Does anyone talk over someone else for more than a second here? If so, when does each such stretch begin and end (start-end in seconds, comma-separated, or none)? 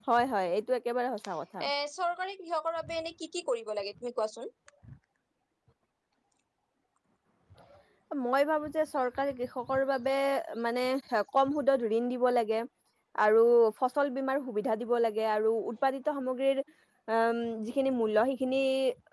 none